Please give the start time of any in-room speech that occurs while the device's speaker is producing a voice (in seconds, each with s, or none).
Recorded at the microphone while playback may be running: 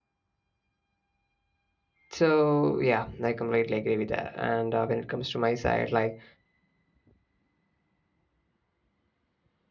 2.1 s